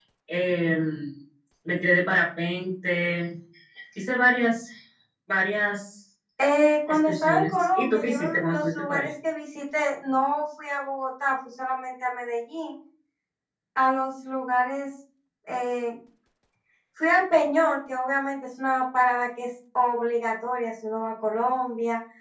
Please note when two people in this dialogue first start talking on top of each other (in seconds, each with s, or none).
6.9 s